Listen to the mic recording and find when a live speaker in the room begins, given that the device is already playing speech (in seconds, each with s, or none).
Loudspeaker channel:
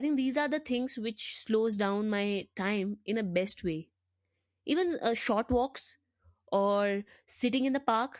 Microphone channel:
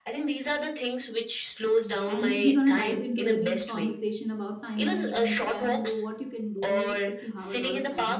2.1 s